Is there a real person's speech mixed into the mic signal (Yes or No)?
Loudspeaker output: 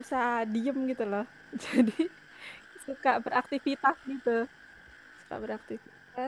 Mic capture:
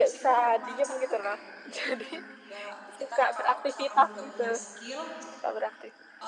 Yes